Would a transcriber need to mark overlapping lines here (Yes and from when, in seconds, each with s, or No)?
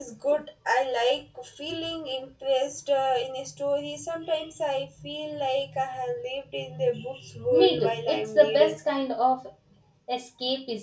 Yes, from 7.5 s